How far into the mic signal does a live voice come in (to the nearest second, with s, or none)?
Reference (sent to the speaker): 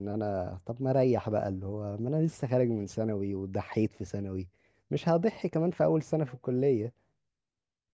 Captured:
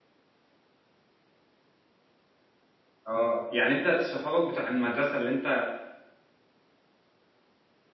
3 s